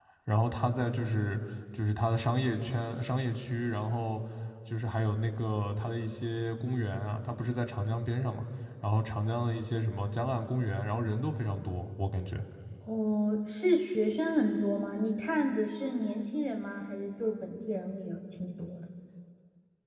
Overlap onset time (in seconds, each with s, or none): none